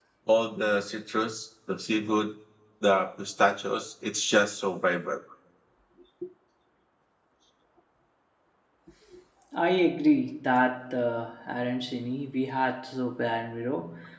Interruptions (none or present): none